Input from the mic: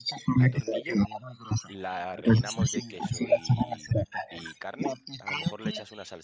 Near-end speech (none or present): present